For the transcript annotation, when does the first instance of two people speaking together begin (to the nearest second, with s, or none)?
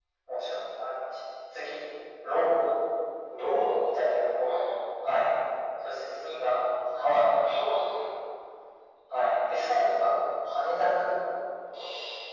none